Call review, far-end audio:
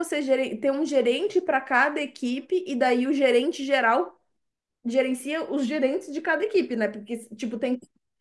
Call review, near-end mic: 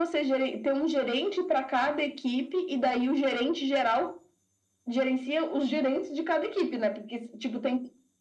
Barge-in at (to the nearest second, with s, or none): none